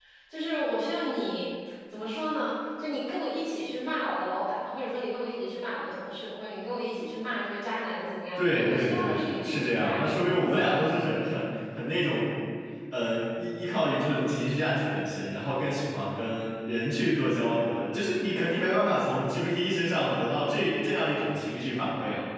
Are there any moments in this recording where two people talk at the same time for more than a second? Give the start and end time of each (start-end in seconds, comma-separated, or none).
8.4-11.0